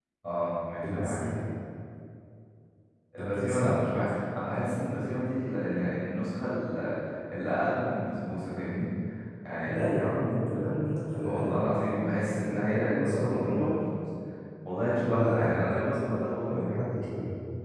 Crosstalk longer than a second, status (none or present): present